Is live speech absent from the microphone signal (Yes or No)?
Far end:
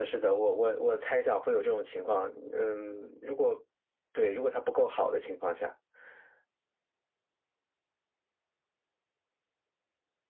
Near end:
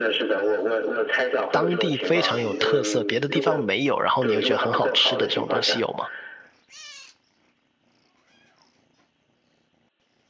No